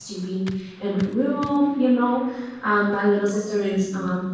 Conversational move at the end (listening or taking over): listening